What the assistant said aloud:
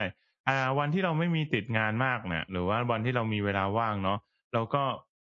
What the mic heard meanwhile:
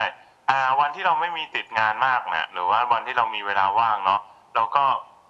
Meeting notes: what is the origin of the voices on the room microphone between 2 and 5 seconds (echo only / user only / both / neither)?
echo only